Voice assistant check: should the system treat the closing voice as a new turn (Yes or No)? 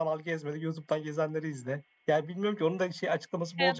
Yes